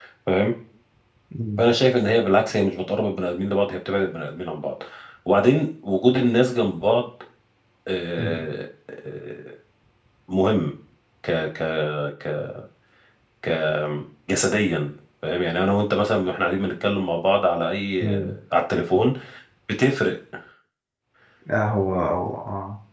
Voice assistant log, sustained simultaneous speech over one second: none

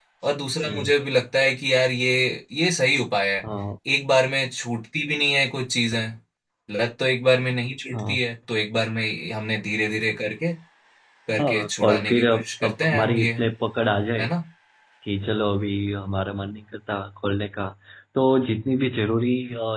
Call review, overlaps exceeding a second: present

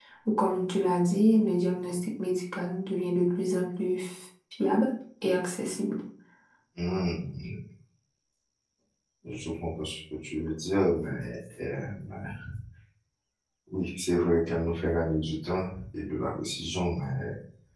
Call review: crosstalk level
none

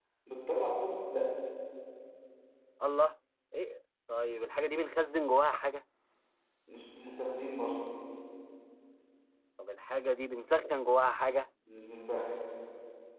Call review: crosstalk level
none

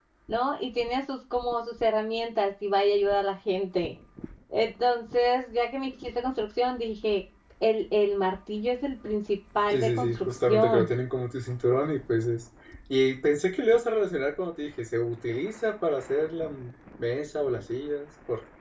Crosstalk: present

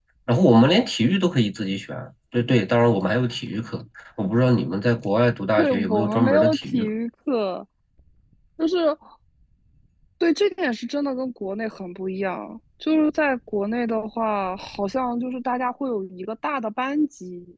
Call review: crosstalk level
present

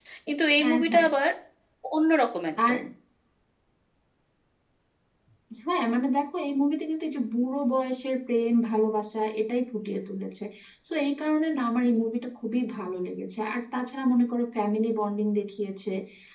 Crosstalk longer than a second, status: none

